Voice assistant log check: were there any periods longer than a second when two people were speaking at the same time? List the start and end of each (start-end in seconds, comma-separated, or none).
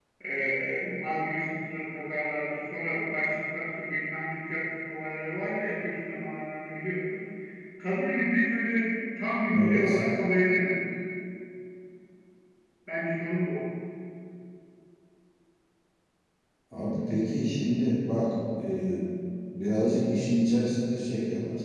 none